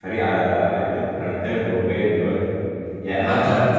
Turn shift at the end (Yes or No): No